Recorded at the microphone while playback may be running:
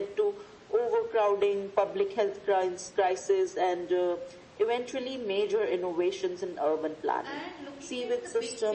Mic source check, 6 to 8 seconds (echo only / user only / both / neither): both